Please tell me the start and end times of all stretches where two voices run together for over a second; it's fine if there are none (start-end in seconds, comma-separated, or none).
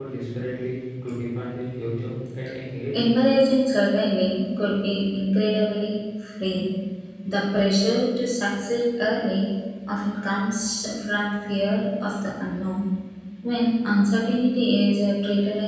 none